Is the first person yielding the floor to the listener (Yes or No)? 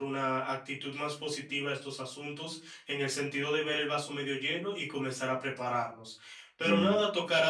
No